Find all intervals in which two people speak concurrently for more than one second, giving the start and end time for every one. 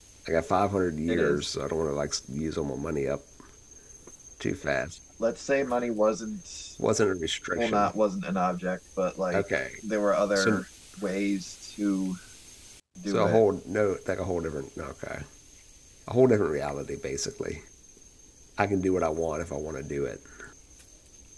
none

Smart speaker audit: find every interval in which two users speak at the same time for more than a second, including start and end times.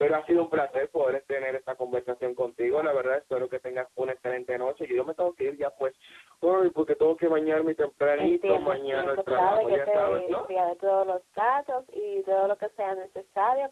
8.2-10.4

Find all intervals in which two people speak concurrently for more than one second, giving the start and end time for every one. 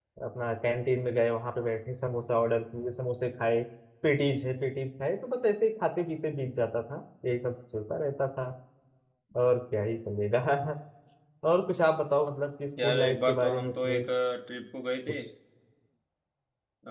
12.8-14.0

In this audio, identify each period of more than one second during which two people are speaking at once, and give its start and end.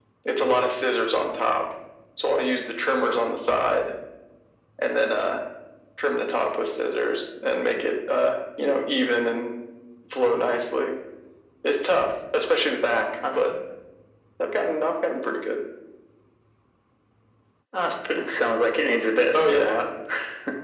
none

